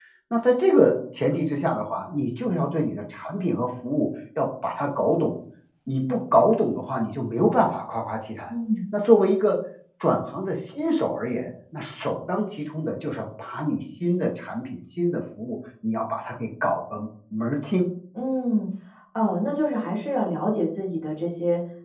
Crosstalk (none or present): none